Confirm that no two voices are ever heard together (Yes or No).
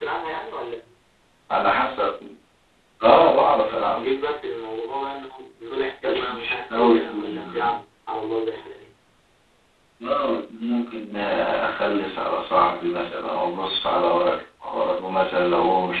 No